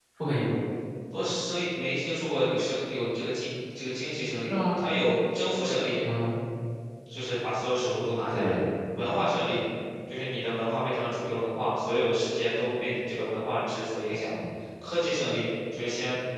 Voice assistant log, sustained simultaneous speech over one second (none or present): none